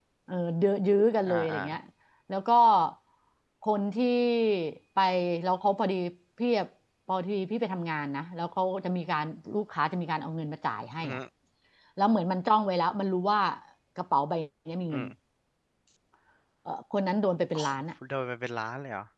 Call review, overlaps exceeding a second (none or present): none